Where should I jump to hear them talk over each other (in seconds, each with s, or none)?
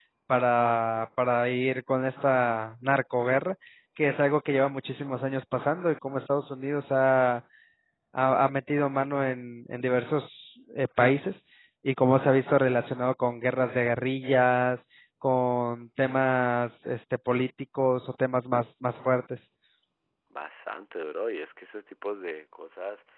none